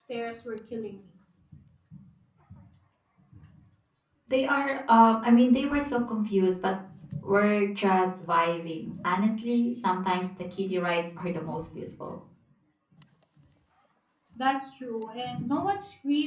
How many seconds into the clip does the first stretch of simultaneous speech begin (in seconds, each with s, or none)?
none